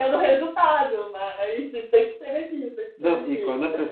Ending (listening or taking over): taking over